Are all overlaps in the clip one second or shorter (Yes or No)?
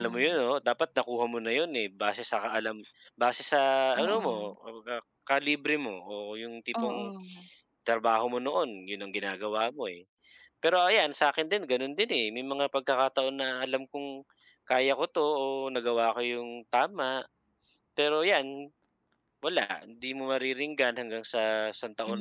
Yes